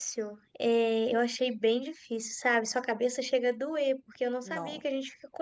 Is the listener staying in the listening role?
Yes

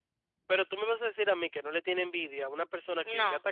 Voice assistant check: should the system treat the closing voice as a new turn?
No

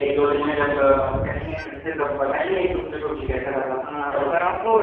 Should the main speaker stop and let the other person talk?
Yes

